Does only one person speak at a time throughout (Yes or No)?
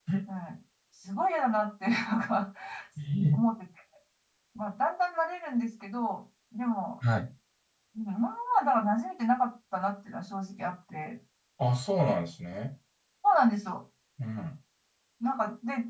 Yes